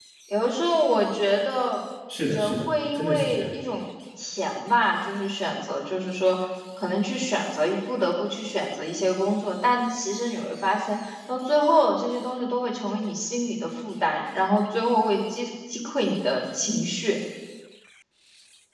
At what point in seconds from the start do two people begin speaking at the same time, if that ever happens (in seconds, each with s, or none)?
2.1 s